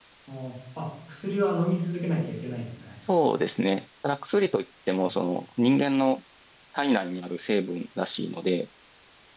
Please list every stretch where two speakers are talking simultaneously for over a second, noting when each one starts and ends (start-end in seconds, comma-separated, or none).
none